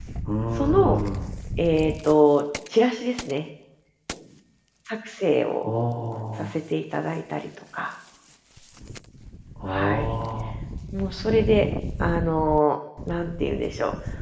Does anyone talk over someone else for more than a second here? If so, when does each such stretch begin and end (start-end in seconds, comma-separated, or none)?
none